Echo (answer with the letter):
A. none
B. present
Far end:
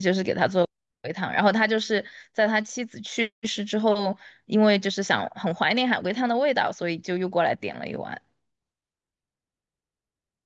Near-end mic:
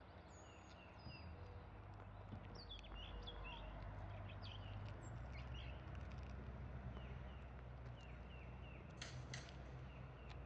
A